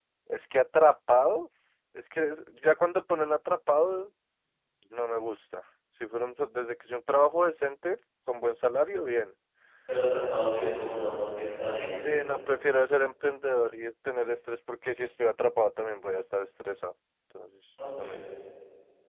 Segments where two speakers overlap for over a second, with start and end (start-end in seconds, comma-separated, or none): none